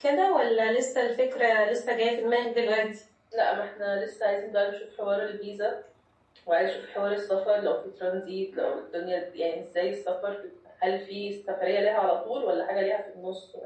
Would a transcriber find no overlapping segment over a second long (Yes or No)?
Yes